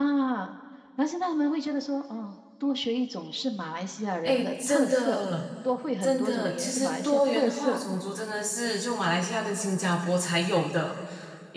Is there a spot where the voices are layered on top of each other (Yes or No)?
Yes